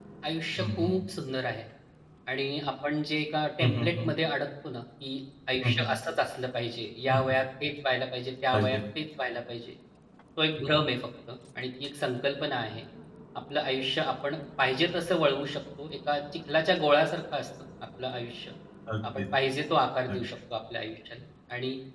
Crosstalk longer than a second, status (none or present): none